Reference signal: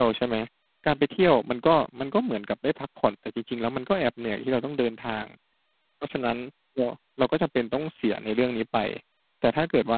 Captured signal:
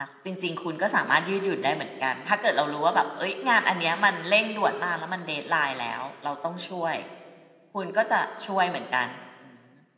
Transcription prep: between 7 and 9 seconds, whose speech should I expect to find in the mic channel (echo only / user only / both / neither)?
user only